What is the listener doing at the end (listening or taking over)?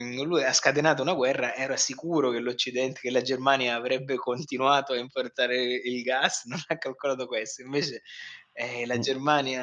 listening